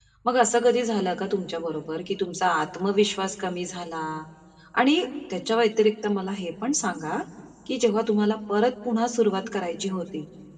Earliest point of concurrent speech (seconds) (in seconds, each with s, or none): none